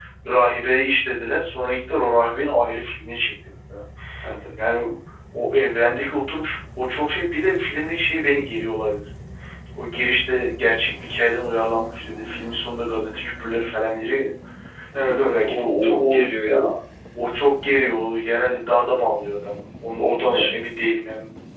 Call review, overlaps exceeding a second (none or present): present